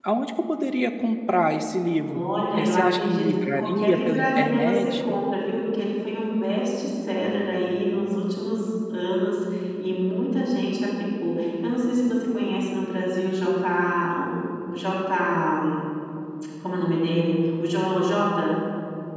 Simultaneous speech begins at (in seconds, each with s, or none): 2.1 s